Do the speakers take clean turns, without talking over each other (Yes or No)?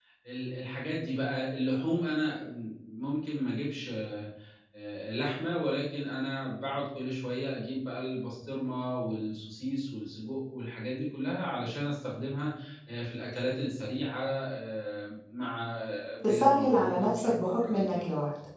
No